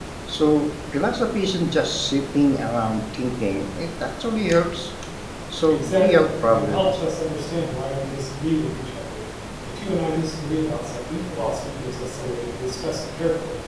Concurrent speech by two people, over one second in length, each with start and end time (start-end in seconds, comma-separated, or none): 5.7-7.0